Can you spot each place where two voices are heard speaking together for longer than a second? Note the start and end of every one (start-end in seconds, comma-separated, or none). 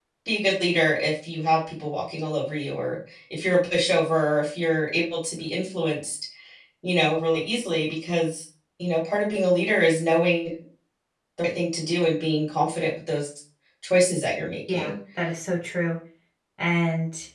none